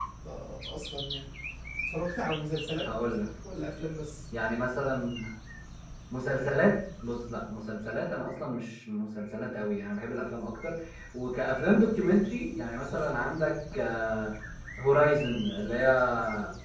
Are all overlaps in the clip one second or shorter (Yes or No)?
Yes